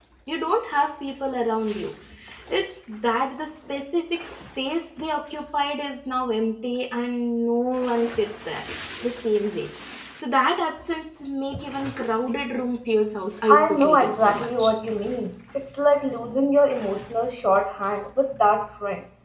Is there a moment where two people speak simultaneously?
Yes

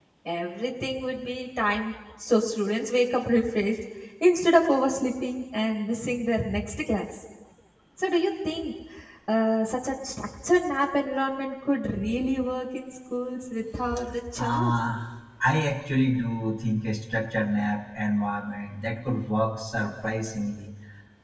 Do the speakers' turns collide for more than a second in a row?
No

